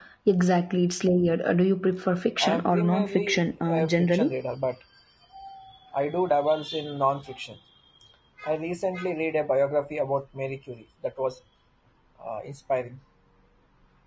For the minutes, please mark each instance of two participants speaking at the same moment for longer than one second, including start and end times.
2.4-4.3

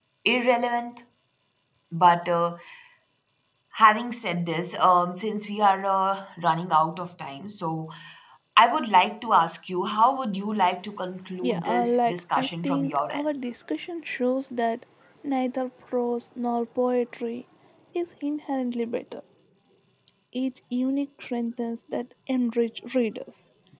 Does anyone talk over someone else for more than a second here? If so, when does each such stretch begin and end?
11.4-13.3

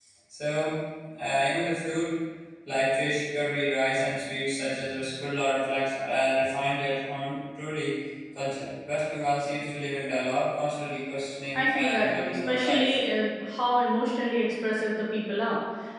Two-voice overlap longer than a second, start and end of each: 11.5-13.0

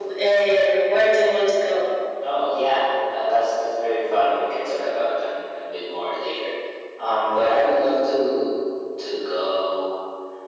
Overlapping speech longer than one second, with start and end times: none

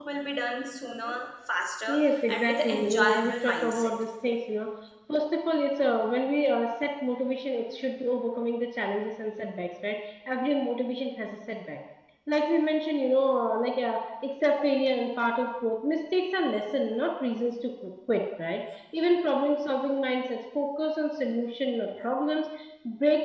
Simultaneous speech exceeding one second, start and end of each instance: 2.3-3.9

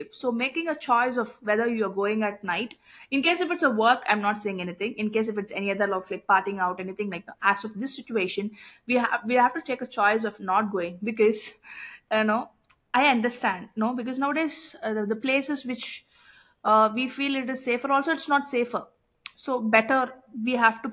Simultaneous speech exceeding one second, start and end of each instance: none

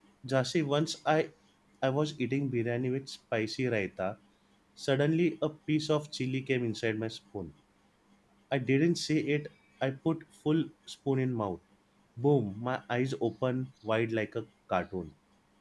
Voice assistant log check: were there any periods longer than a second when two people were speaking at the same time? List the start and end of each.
none

